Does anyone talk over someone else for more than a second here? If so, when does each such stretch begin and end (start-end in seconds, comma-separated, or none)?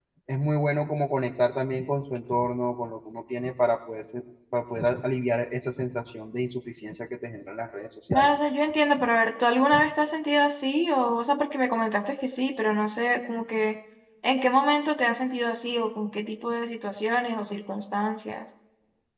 none